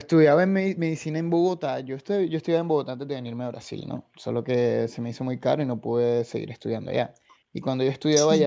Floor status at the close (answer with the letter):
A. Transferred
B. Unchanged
B